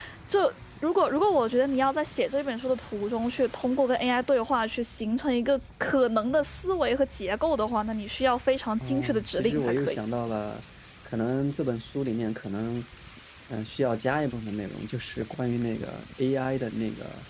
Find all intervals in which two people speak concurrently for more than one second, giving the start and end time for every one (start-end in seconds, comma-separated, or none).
8.8-10.0